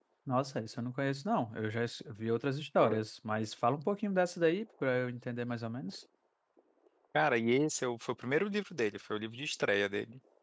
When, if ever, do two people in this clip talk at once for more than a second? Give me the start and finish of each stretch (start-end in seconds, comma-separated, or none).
none